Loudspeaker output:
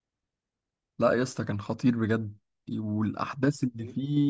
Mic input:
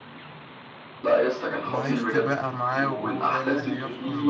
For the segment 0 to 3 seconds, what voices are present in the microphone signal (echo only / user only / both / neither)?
both